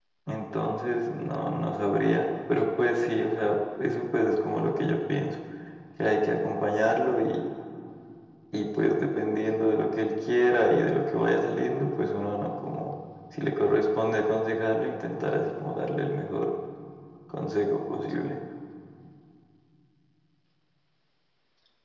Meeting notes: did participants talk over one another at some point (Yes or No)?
No